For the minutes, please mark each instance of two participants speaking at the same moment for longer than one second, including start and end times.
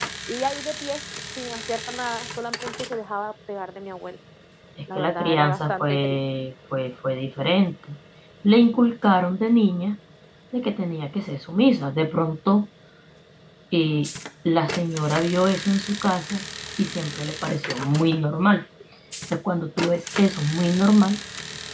5.0-6.2

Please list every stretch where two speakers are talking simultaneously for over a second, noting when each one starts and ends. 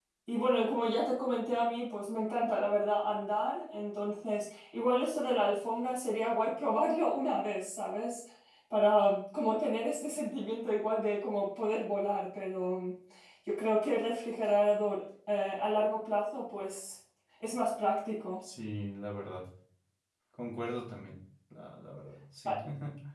none

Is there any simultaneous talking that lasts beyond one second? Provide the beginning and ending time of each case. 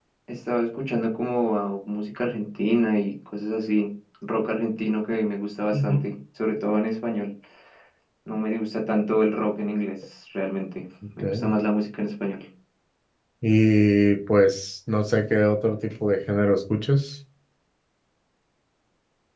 none

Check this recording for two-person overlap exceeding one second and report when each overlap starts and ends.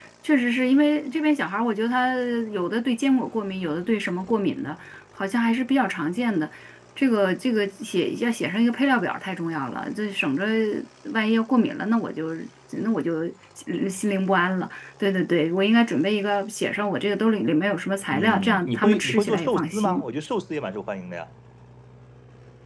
18.1-20.1

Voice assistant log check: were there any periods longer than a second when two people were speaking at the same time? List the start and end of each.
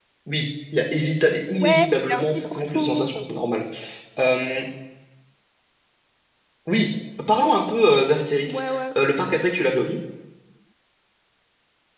1.6-3.2

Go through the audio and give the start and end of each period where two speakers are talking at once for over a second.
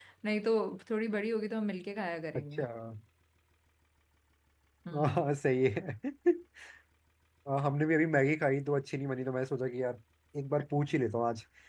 none

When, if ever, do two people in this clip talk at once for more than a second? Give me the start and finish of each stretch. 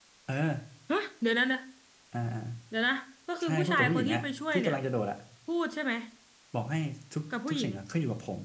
3.4-4.8

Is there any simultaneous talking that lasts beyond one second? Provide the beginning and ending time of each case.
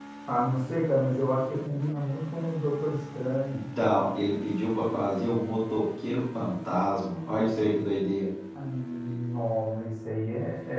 none

